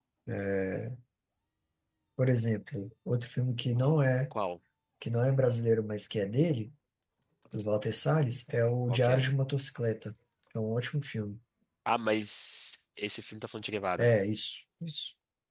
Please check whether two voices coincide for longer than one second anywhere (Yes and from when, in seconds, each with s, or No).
No